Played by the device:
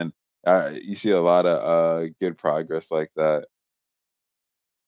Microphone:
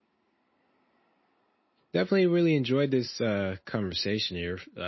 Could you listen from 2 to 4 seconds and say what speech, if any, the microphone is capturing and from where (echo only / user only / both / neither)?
user only